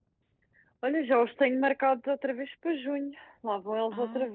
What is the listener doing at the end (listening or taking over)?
taking over